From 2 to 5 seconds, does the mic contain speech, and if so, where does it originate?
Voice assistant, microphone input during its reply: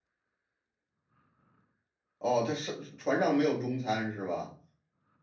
user only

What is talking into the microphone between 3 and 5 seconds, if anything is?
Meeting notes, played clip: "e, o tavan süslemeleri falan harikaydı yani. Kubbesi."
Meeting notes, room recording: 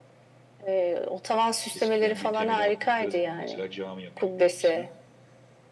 both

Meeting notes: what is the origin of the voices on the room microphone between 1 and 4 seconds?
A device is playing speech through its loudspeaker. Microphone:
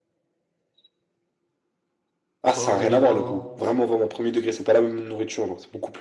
both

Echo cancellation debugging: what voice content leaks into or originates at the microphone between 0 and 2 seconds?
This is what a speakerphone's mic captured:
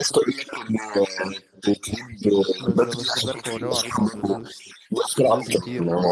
echo only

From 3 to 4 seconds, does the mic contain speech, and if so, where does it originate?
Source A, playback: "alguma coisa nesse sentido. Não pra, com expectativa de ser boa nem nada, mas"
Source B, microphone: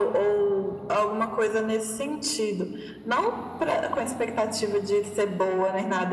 echo only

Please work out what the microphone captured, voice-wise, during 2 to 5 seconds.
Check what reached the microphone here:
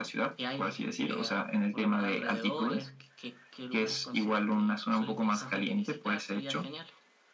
echo only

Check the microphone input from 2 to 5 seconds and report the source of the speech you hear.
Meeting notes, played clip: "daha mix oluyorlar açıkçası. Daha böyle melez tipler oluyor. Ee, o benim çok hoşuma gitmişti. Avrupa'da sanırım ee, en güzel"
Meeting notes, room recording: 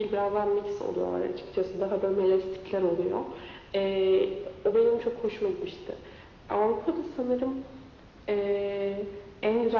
echo only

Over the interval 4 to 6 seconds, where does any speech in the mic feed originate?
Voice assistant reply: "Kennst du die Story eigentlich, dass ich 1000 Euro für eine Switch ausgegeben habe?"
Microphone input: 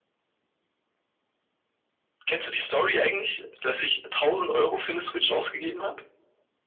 echo only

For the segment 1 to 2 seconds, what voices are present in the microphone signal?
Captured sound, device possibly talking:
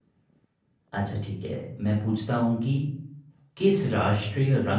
user only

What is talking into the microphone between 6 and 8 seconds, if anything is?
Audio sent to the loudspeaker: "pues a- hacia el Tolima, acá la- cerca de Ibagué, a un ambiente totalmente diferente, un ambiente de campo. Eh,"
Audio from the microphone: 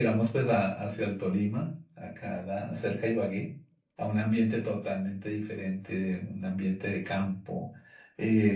echo only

